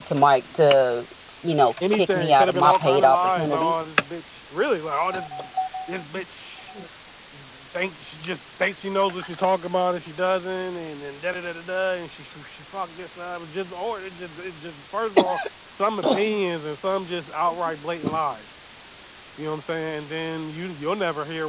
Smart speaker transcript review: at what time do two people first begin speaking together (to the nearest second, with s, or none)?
2 s